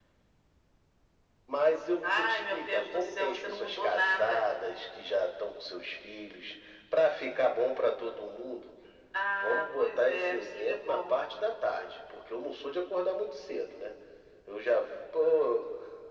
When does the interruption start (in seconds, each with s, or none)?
2.0 s